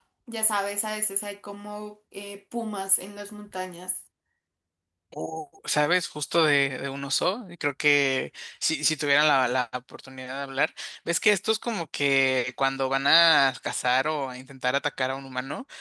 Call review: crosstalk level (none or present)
none